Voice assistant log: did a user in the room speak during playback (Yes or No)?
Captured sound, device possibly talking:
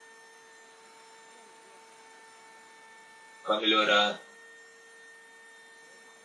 Yes